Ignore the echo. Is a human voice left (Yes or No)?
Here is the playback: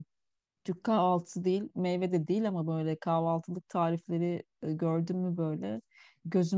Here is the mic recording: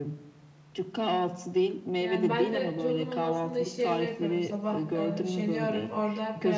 Yes